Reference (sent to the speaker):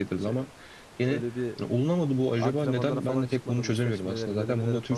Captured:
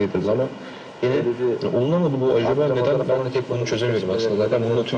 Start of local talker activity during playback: none

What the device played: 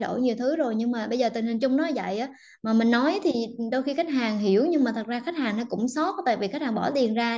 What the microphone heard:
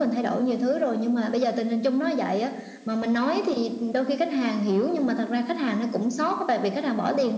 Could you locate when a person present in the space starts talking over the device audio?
none

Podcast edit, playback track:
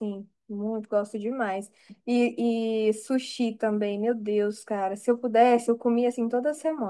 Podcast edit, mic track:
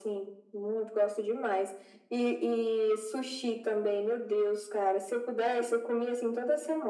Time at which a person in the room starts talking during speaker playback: none

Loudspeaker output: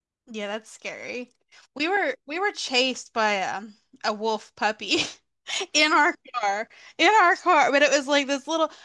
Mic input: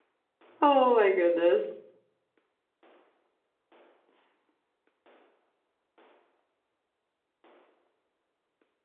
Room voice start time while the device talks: 1 s

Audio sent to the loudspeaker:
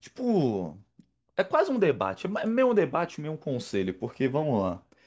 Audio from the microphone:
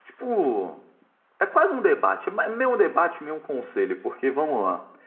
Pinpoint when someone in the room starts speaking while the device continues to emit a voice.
none

